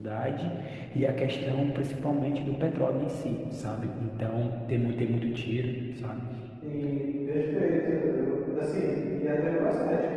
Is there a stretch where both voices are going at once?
No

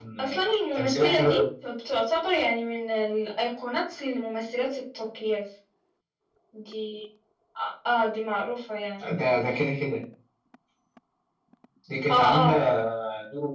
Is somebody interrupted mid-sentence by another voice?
Yes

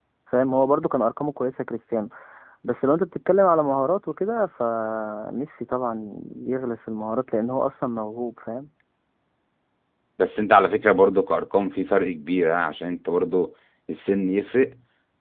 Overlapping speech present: No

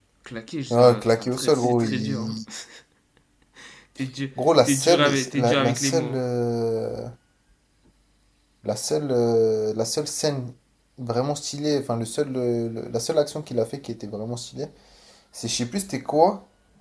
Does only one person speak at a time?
No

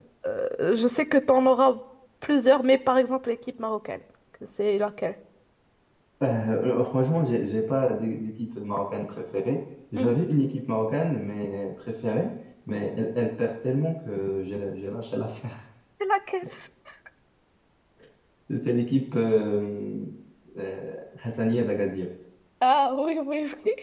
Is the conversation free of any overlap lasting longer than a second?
Yes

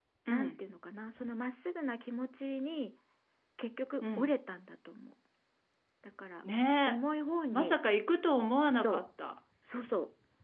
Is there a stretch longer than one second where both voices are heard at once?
No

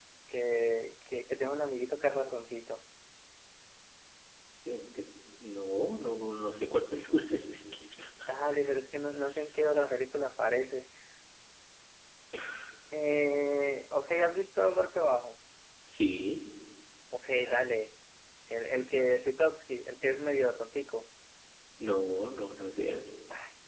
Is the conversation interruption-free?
Yes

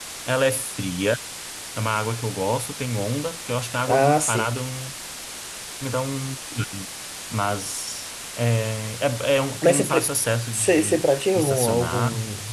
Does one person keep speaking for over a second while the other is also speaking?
Yes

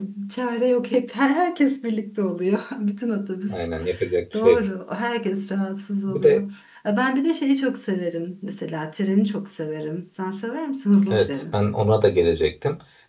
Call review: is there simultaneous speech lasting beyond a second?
No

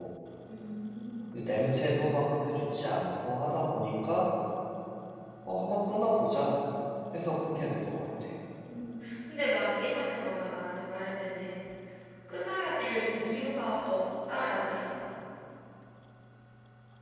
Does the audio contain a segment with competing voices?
No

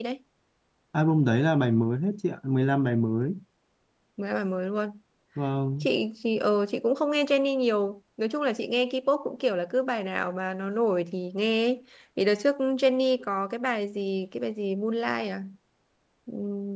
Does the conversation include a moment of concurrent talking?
No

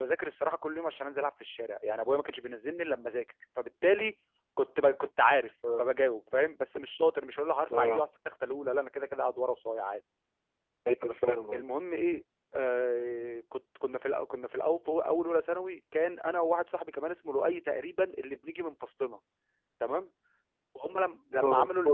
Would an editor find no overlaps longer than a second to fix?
Yes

